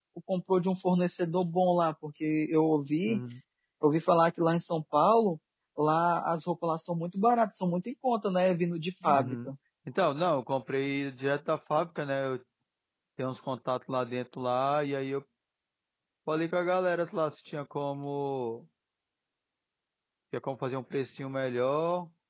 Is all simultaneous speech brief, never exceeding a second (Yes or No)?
Yes